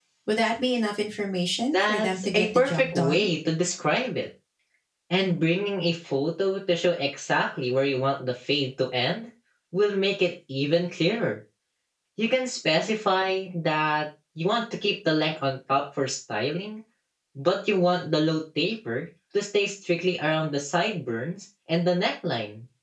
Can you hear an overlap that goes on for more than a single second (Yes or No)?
Yes